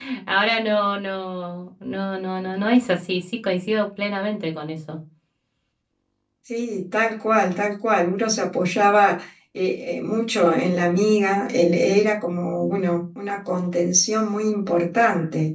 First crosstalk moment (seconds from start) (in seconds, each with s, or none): none